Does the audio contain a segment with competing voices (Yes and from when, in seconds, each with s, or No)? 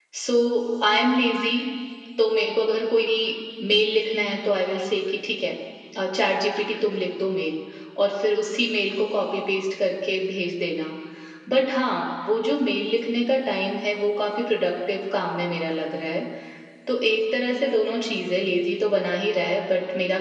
No